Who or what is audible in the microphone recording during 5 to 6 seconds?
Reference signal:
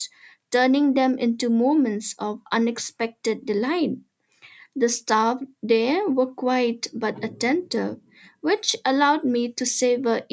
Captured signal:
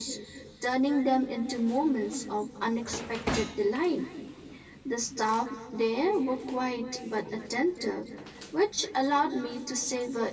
echo only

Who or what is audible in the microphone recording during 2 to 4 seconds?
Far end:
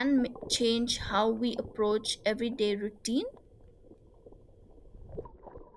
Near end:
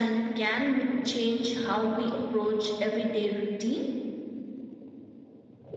echo only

